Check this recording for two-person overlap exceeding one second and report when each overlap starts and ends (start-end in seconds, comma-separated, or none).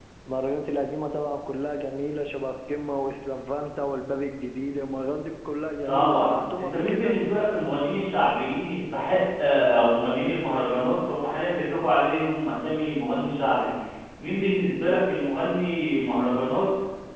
5.8-7.2